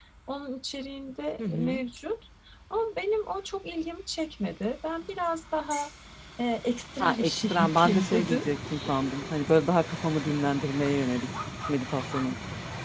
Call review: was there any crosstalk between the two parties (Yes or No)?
Yes